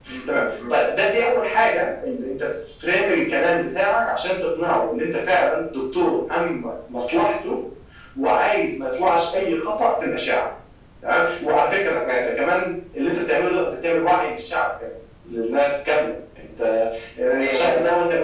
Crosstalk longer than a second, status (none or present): none